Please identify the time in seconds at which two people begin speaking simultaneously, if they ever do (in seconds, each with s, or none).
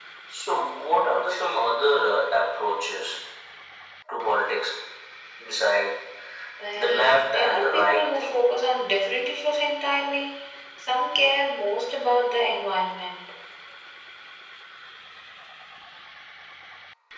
6.8 s